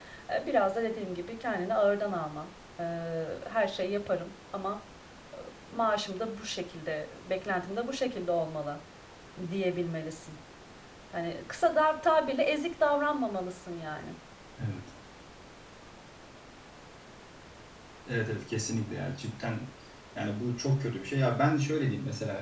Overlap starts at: none

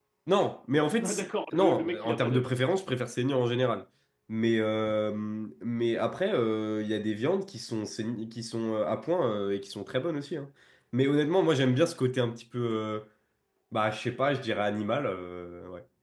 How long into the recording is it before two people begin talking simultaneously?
1 s

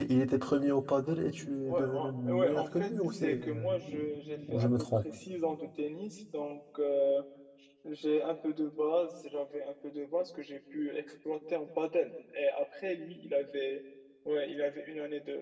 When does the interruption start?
2 s

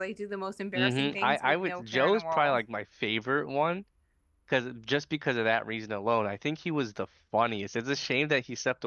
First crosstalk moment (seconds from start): 1 s

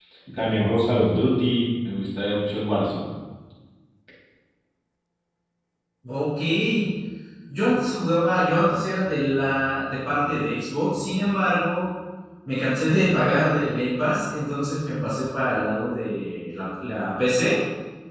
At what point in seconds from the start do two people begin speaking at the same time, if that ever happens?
none

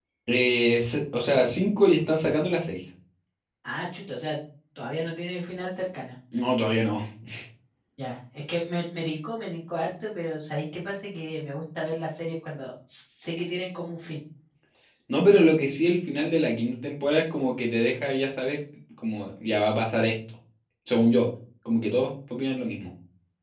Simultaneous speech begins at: none

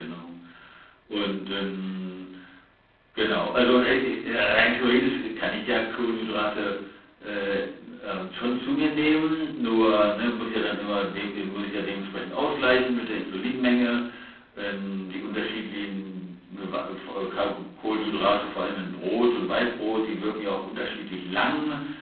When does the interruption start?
none

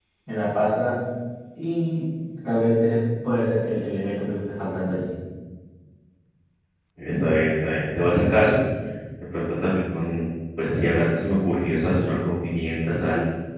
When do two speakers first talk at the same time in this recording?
none

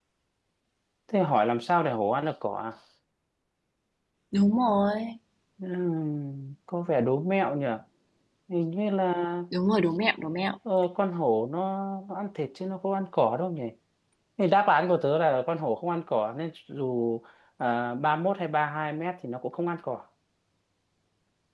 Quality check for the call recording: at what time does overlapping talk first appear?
none

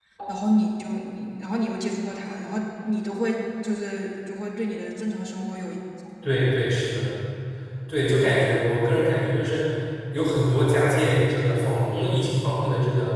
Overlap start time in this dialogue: none

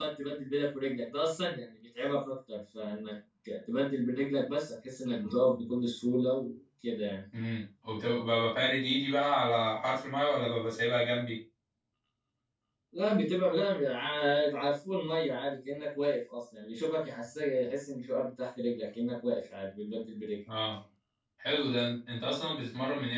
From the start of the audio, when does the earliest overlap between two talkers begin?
none

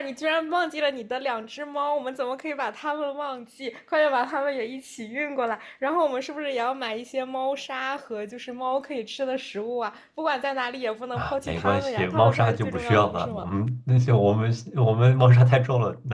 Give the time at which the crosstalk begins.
11 s

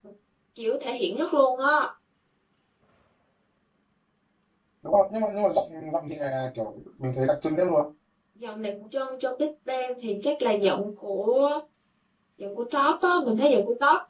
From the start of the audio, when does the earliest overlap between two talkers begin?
none

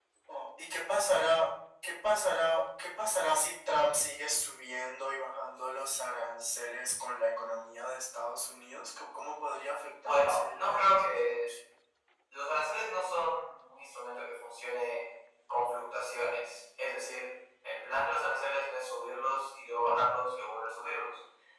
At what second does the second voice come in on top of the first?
10 s

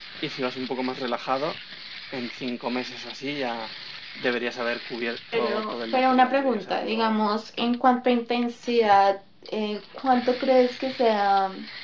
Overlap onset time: 5 s

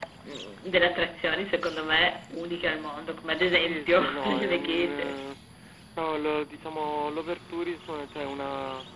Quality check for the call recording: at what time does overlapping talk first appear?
4 s

